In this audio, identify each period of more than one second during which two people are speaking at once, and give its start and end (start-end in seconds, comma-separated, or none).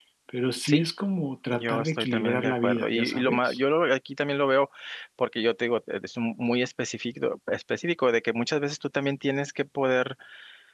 1.5-3.6